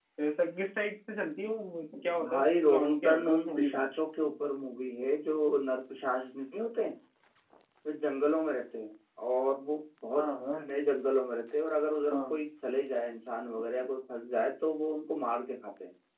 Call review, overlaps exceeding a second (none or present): present